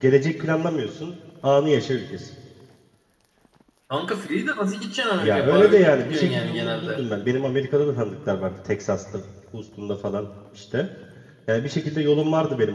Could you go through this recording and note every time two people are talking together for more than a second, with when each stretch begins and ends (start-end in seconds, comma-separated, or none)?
5.2-7.0